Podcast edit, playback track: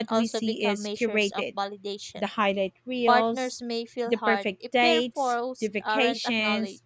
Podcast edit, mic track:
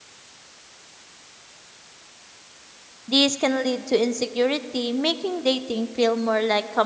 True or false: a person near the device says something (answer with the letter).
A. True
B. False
A